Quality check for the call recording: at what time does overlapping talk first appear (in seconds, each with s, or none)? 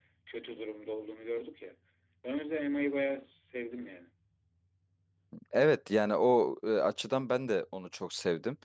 none